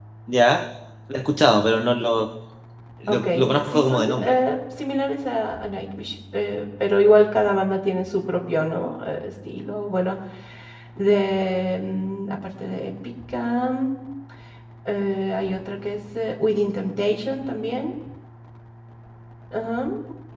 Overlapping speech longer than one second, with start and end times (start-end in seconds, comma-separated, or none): 3.1-4.3